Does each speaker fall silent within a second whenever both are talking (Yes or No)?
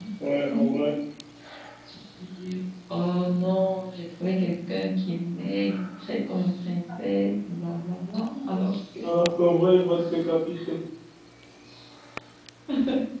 Yes